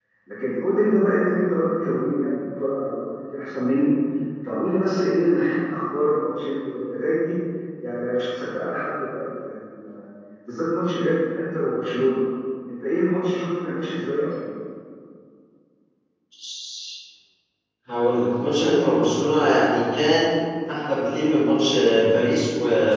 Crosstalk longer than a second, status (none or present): none